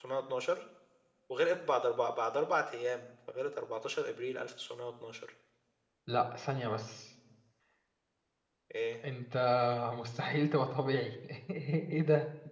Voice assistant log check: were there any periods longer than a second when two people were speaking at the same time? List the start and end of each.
none

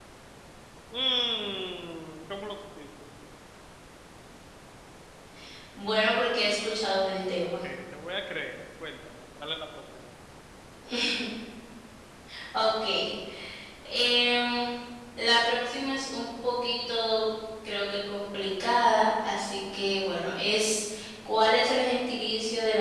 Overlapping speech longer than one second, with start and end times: none

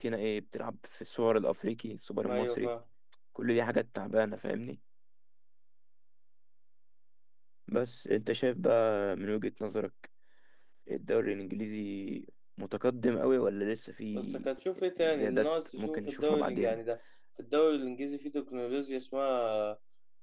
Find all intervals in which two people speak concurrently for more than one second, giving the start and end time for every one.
15.0-16.8

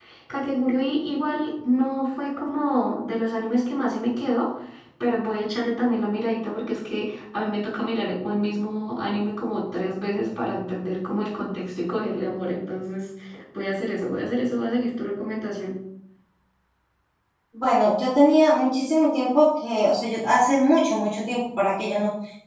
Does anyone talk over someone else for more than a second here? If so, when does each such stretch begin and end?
none

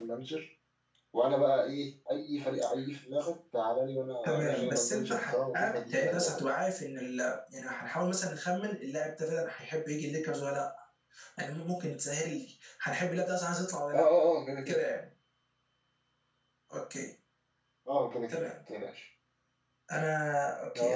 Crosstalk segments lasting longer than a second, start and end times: 4.2-6.4

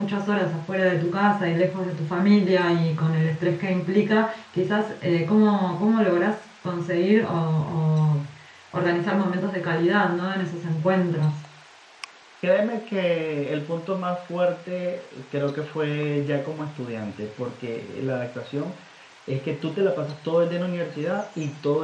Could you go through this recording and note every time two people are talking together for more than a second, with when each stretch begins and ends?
none

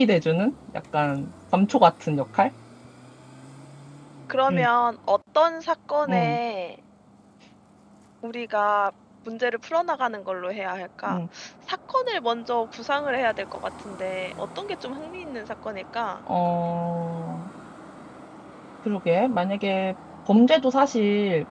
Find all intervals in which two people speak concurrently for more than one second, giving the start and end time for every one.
none

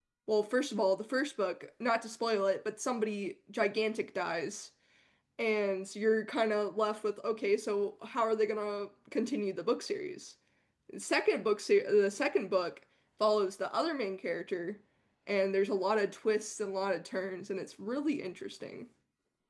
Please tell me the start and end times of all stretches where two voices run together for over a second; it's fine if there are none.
none

